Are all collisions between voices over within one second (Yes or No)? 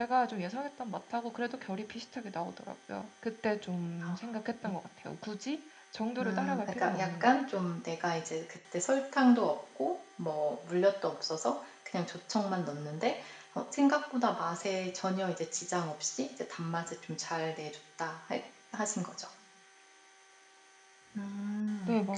No